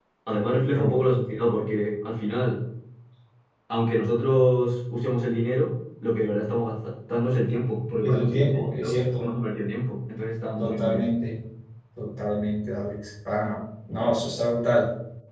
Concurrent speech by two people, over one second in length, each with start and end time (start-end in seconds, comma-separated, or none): 8.0-9.4